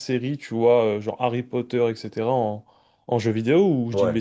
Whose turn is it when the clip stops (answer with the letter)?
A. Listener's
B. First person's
A